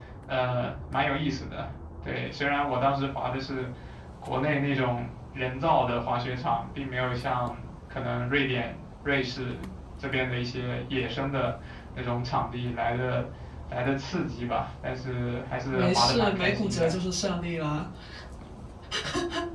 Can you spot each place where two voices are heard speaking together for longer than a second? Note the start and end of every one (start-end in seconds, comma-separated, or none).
15.7-16.9